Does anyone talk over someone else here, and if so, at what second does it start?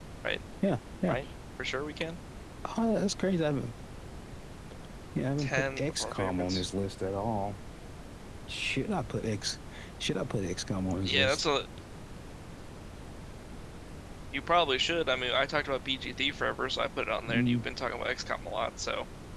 5.4 s

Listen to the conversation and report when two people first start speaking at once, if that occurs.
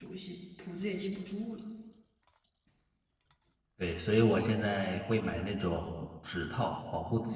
none

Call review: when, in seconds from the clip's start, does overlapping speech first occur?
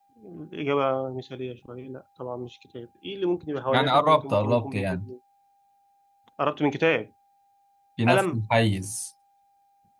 3.7 s

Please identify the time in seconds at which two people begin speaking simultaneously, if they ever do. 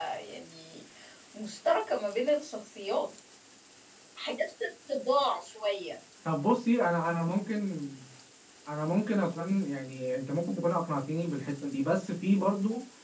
none

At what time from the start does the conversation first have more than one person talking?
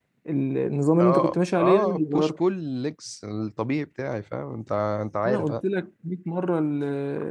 1.0 s

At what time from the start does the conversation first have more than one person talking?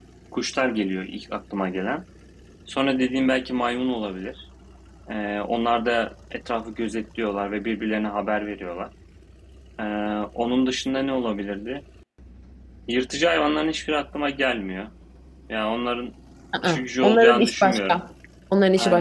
16.6 s

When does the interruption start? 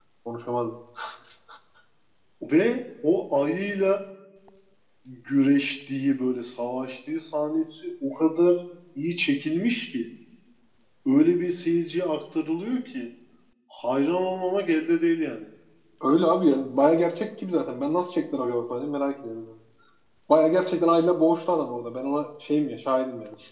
none

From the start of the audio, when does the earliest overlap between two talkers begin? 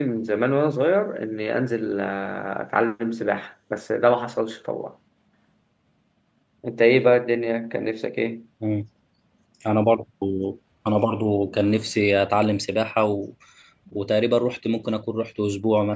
none

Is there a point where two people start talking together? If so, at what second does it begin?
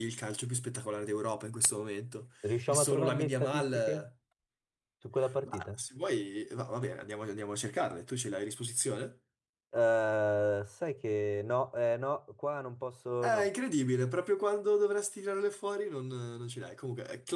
2.7 s

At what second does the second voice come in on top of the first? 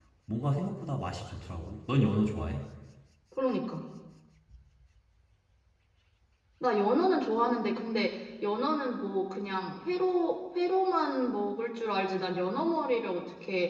none

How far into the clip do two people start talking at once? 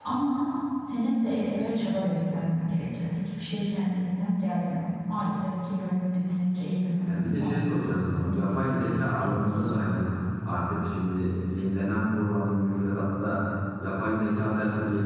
7.0 s

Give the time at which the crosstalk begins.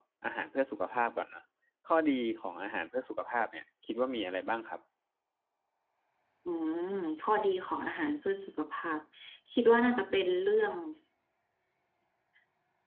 none

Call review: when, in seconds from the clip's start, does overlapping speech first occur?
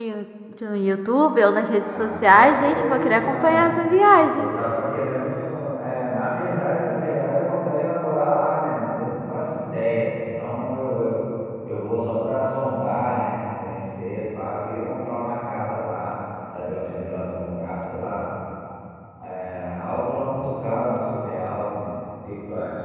1.7 s

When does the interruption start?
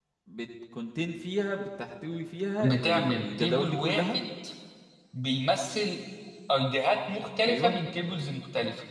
2.6 s

